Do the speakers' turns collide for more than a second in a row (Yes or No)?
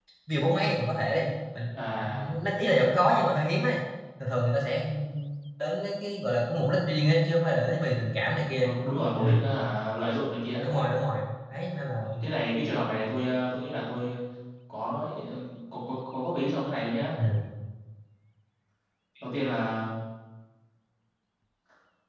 No